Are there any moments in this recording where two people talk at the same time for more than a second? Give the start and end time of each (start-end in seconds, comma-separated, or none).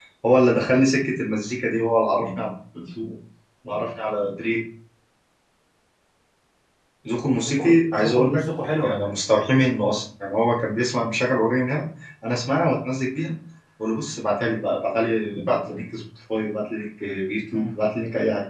7.4-9.1